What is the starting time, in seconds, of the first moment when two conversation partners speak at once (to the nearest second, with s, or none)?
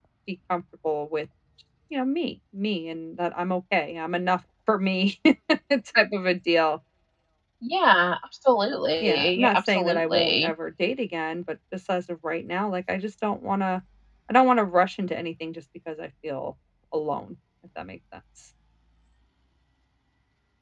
9 s